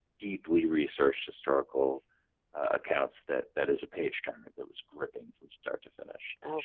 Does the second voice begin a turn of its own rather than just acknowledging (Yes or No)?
No